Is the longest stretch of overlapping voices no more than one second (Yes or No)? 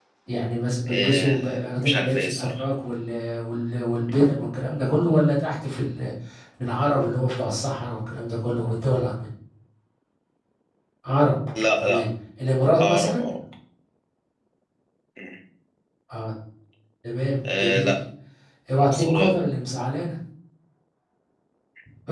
No